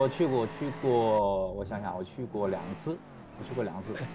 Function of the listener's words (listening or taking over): taking over